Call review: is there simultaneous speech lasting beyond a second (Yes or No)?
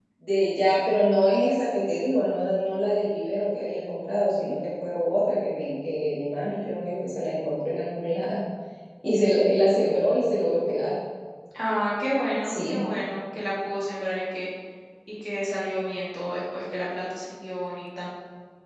No